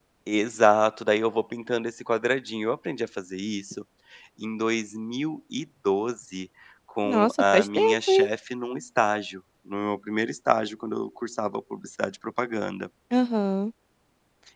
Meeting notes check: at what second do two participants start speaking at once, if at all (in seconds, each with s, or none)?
7.0 s